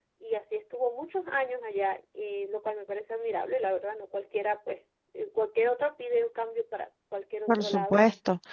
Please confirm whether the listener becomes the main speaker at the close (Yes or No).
Yes